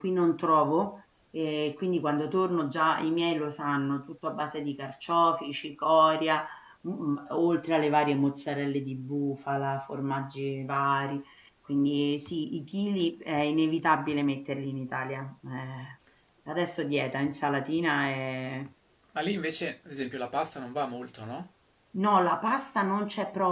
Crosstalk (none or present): none